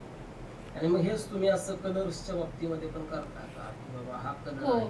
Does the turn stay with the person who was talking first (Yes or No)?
No